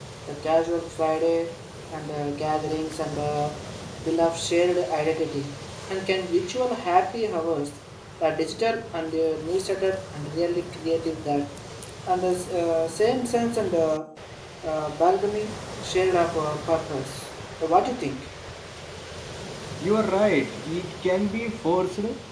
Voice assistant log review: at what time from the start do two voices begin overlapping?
none

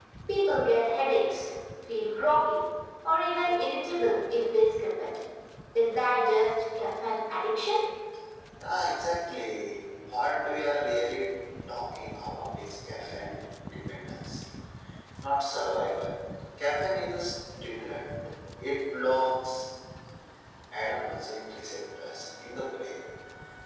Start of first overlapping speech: none

